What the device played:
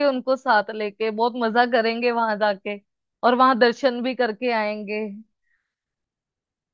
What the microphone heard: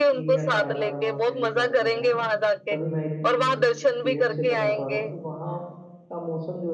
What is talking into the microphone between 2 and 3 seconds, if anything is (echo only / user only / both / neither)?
both